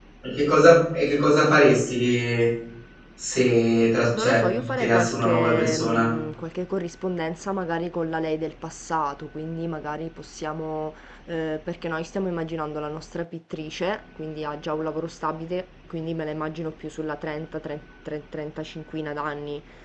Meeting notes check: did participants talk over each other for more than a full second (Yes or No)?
Yes